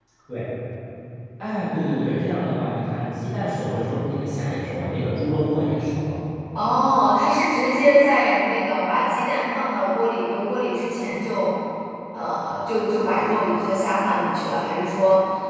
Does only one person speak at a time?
Yes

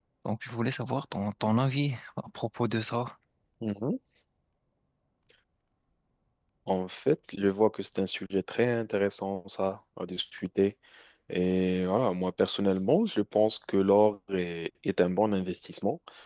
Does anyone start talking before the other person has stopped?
No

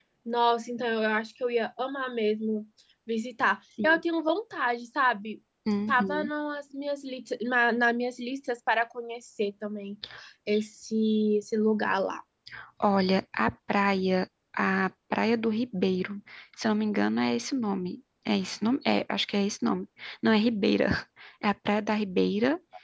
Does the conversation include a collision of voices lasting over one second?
No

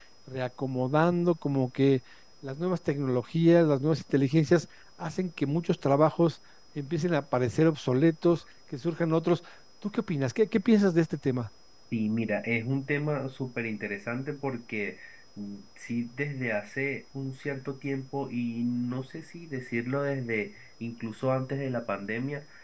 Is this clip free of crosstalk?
Yes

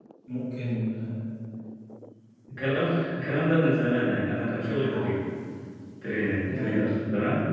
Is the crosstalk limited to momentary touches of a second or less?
Yes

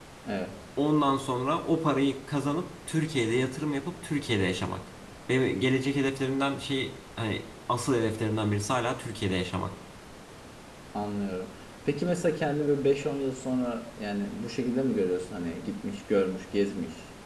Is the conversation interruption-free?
Yes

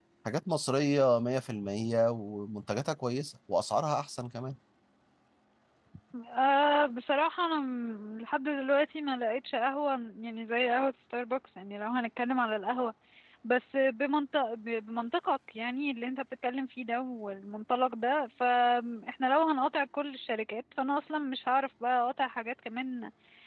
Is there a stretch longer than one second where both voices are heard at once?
No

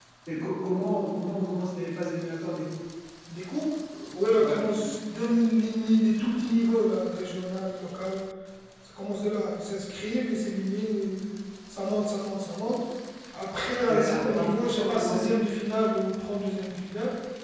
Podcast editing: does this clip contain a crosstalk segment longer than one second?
Yes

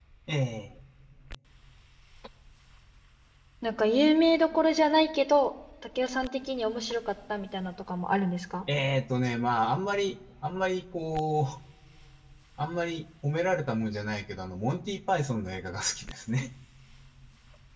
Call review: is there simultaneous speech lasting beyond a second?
No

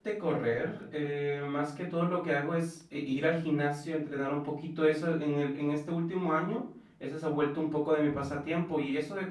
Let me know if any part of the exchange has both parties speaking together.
No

